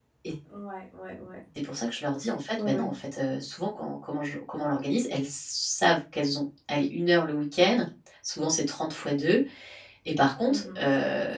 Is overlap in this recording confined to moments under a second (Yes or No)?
Yes